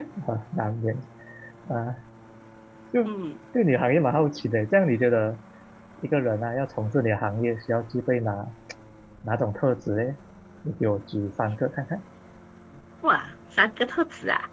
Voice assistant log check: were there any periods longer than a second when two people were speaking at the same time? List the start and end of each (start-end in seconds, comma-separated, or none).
none